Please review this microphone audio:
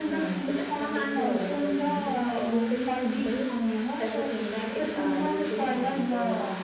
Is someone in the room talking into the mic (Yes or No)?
Yes